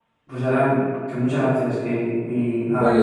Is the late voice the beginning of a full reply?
Yes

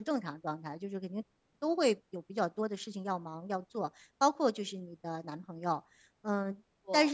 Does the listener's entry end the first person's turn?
No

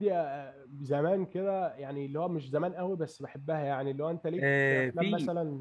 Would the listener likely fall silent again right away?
No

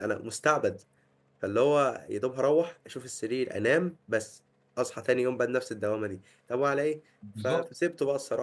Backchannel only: Yes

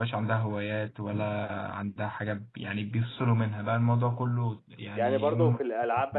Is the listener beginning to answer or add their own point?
Yes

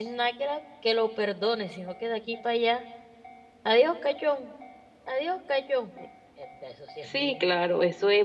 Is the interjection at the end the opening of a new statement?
Yes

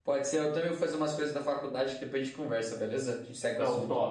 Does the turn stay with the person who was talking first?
No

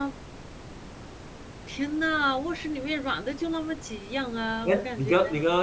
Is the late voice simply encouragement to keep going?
No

